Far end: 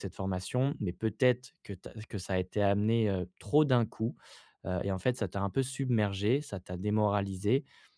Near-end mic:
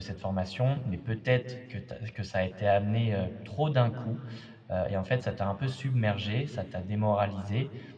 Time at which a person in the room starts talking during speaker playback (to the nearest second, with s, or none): none